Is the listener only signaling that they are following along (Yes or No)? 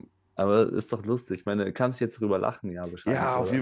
No